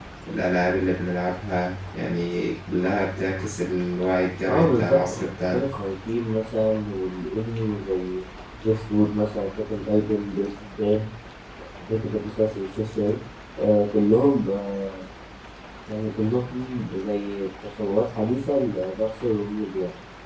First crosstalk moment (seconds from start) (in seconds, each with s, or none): 4.4 s